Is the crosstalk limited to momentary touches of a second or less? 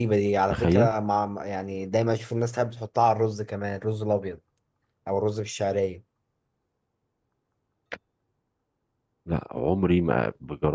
Yes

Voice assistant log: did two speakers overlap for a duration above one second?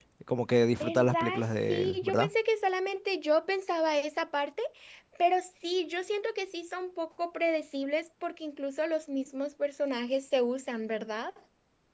Yes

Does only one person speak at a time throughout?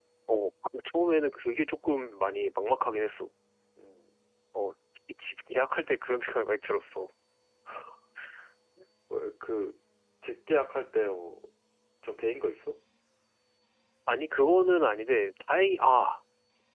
Yes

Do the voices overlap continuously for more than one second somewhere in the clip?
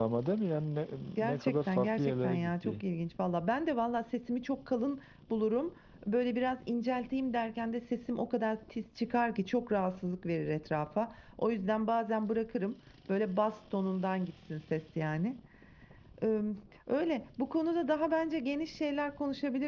Yes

